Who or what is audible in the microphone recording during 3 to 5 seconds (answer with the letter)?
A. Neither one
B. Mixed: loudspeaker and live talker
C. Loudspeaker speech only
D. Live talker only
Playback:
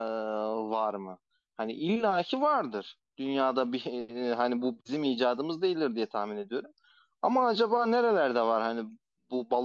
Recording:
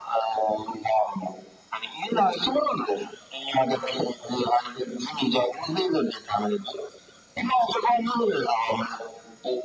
C